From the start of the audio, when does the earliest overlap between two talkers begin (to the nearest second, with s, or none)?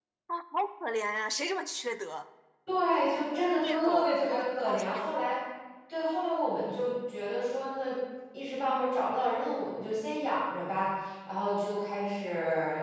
4 s